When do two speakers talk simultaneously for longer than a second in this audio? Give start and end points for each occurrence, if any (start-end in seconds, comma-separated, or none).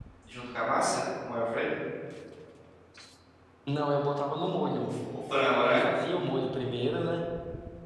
none